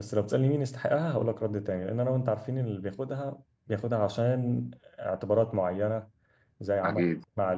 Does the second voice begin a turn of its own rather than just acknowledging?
No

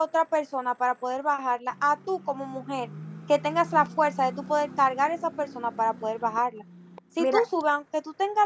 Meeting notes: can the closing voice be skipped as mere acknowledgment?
Yes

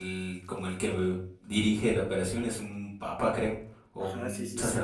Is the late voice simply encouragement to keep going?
No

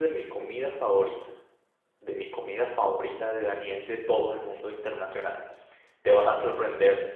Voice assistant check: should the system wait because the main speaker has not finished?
Yes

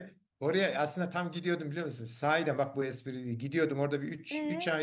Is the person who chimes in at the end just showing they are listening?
Yes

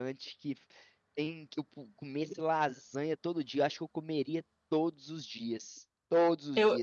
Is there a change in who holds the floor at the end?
No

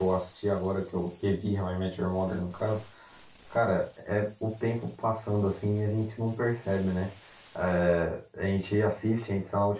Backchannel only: Yes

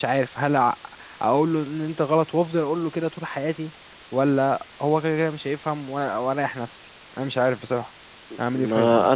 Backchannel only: No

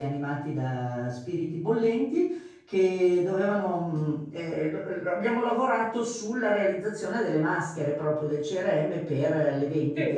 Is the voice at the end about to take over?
No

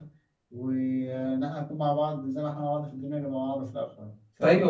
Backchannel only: No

